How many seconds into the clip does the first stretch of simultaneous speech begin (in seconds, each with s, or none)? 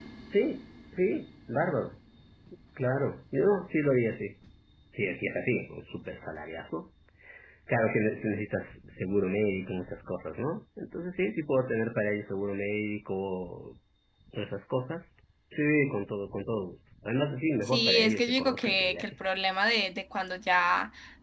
17.7 s